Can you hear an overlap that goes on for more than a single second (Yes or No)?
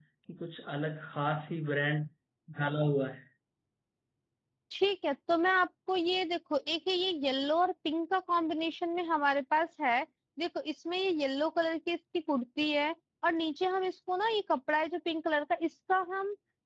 No